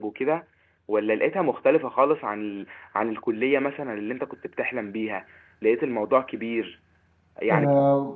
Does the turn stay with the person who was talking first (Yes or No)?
No